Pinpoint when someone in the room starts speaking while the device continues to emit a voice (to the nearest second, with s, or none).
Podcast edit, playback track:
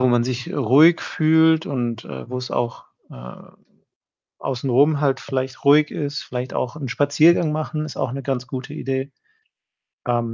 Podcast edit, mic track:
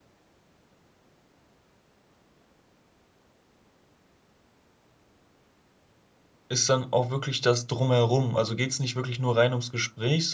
6 s